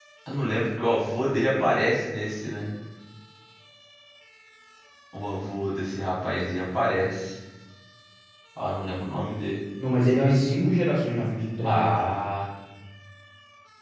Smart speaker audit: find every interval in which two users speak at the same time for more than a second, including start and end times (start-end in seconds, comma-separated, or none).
none